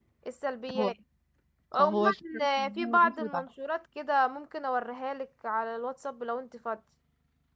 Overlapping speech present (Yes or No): Yes